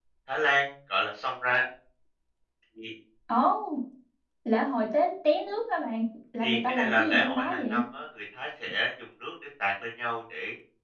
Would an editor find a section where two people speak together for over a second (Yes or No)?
Yes